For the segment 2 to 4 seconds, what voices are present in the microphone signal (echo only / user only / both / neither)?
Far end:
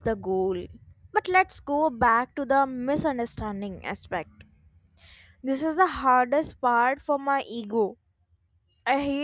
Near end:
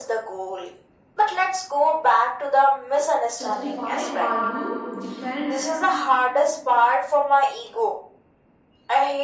both